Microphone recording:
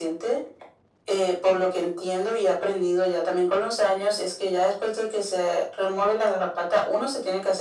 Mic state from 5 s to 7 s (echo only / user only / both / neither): echo only